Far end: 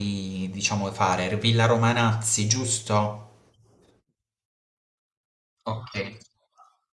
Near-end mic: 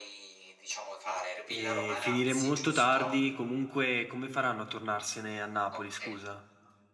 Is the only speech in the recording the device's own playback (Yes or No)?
No